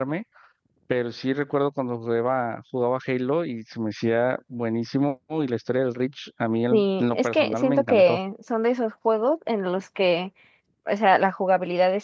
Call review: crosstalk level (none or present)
present